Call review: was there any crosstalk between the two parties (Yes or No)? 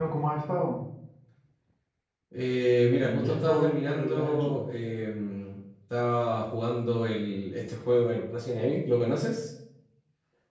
Yes